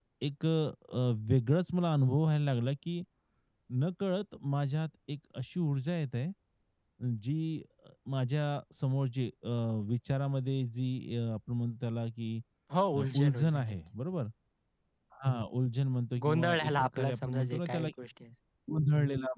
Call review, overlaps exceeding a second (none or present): present